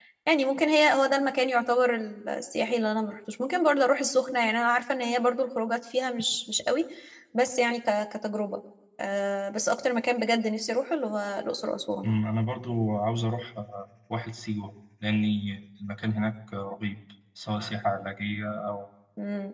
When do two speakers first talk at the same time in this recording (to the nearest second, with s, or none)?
none